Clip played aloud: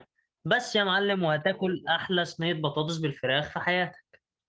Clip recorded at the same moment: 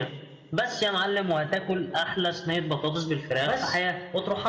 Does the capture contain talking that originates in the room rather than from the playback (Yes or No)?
Yes